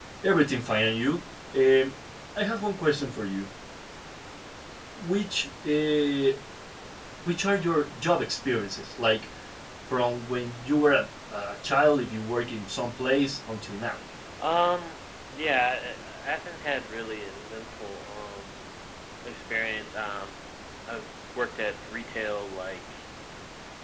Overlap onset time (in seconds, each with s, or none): none